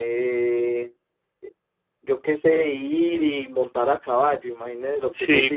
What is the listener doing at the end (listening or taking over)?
taking over